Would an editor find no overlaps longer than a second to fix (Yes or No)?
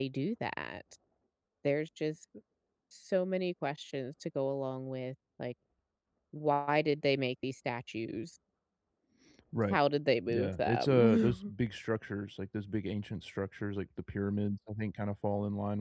No